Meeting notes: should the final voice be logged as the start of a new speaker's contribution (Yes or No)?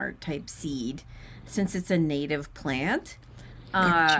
No